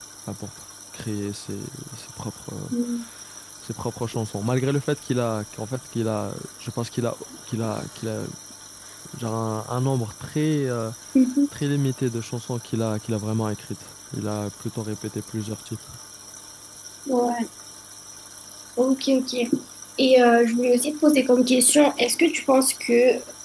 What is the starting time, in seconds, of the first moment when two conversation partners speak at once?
none

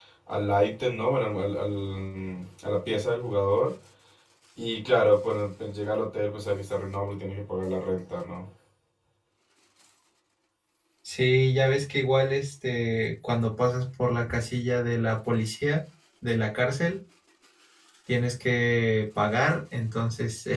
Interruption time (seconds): none

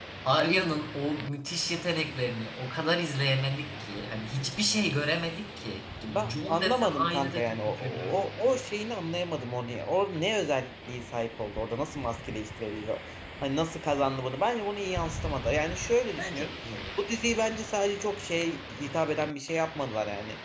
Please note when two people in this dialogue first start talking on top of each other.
6.3 s

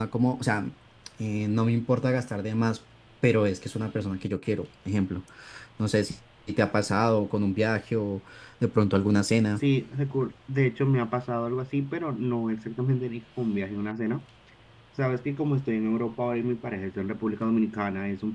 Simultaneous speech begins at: none

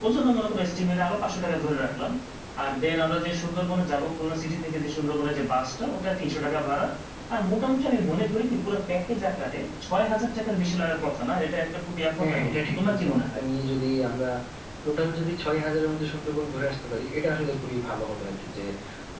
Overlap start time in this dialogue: 12.2 s

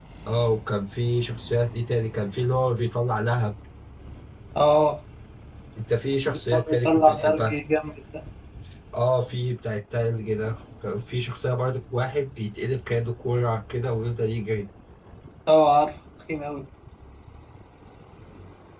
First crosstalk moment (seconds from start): 6.3 s

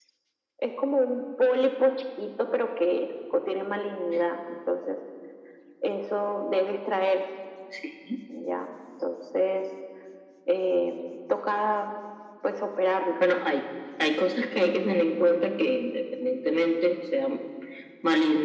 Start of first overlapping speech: none

